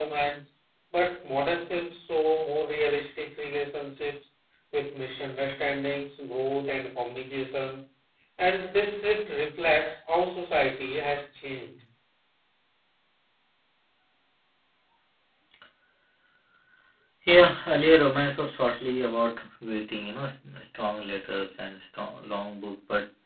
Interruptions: none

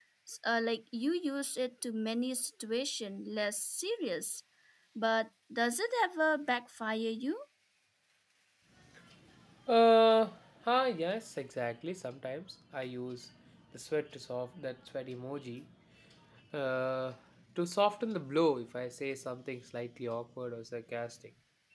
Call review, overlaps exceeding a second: none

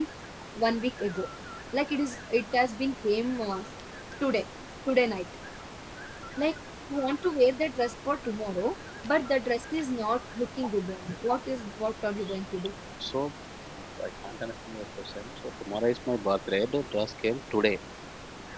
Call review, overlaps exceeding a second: none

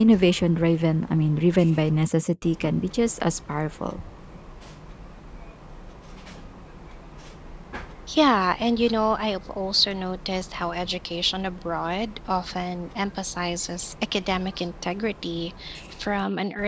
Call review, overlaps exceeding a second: none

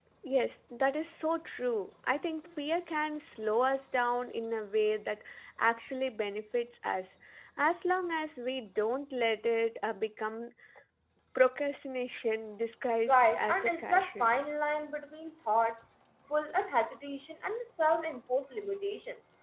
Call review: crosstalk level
present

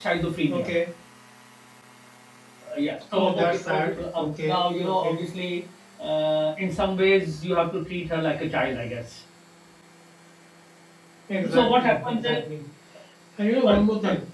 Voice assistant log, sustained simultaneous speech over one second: present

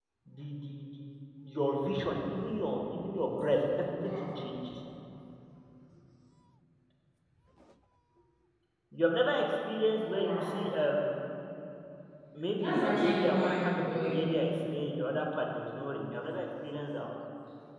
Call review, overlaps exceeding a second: present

